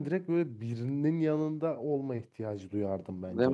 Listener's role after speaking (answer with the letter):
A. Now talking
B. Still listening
A